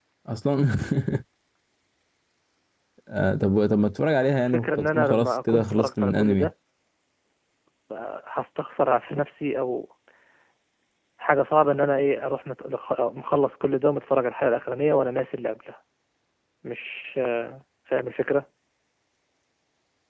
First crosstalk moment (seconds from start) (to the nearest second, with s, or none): 4 s